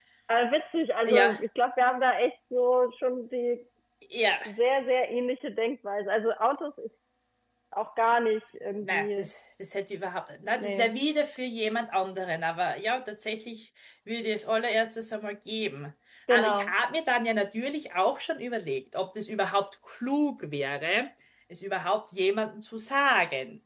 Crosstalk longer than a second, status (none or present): none